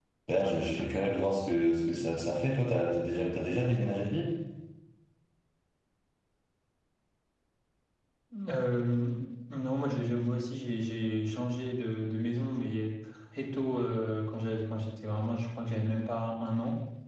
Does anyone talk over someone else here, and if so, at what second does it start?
none

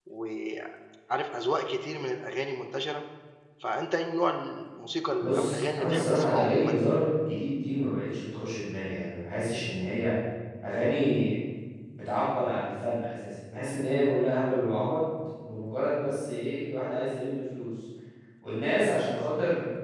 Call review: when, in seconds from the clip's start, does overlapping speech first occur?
5.2 s

